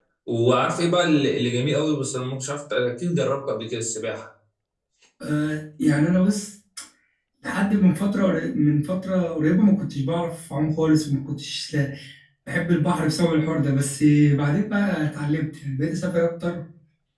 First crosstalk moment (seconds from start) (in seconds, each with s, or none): none